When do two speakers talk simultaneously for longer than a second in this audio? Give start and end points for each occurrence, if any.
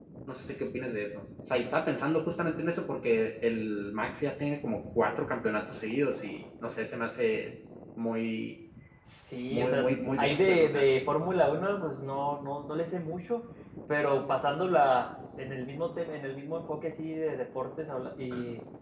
9.5-10.8

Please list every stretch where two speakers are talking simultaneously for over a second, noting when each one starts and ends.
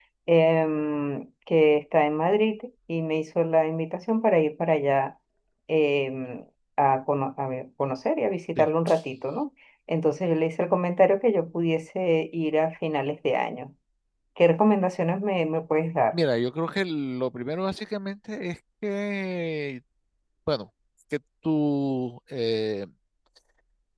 none

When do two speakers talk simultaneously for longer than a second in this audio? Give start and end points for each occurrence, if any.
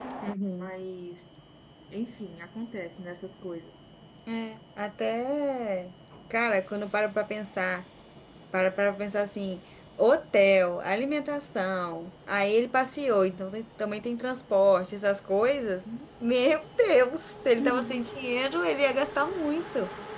none

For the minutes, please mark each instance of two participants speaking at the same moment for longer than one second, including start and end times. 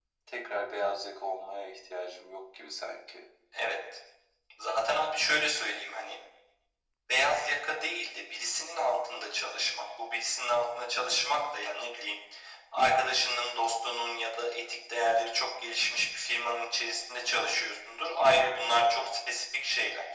none

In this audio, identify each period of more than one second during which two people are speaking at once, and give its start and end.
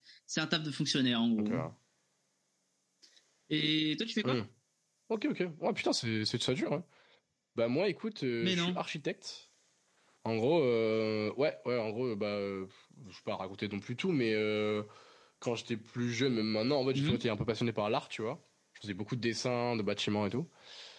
none

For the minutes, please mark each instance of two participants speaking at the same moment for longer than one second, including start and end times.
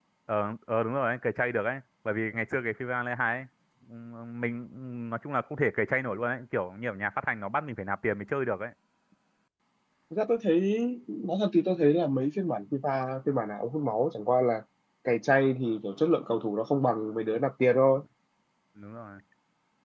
none

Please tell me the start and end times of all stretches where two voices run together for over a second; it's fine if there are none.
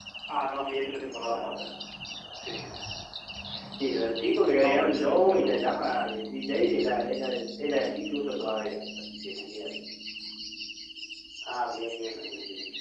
4.6-5.9

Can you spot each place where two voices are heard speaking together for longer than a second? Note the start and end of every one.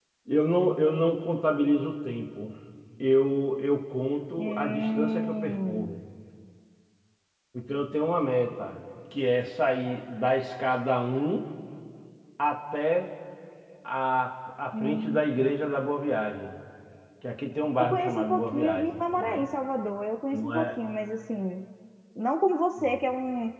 4.4-6.0, 17.8-19.5

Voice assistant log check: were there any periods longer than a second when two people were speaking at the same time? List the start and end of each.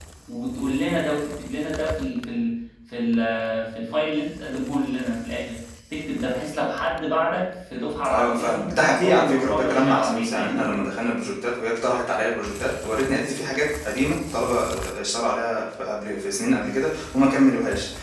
8.1-10.7

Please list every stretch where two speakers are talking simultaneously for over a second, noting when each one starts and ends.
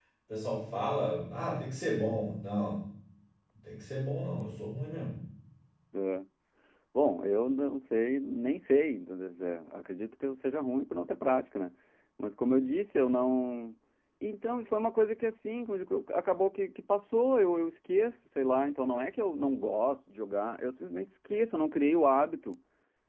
none

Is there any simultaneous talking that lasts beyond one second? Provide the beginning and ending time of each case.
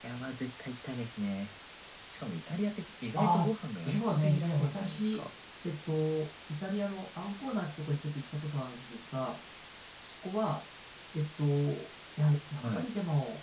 3.9-5.3

